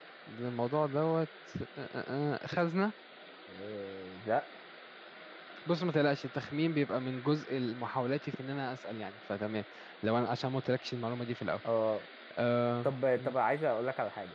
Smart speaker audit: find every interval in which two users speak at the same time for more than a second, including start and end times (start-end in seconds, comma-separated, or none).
none